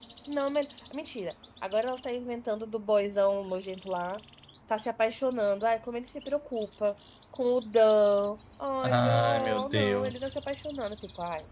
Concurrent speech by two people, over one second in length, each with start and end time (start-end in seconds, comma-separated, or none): 8.8-10.4